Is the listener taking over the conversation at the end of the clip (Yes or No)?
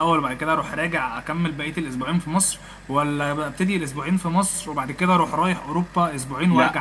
Yes